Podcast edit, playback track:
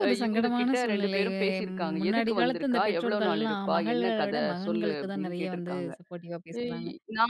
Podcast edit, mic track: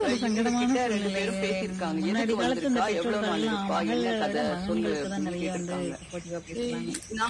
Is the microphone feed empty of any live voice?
Yes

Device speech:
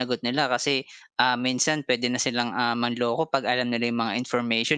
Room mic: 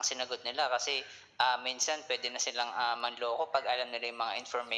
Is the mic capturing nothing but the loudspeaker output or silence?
Yes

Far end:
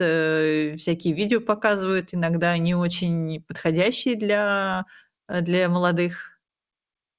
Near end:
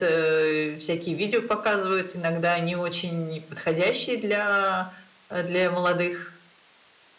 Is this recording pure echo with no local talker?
Yes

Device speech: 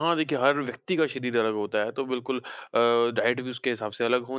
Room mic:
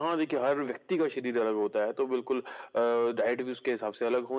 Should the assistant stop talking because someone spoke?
No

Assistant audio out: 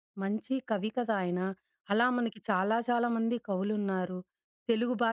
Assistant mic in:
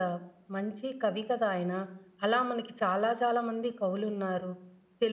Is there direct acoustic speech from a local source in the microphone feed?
No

